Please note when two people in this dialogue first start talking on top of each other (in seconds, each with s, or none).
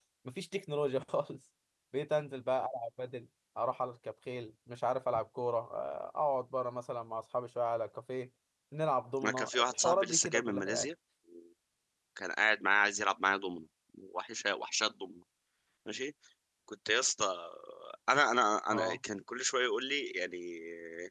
9.2 s